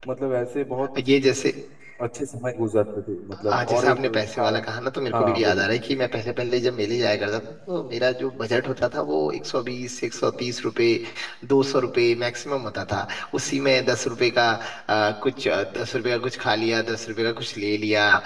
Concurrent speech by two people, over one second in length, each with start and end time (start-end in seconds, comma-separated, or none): 3.3-4.5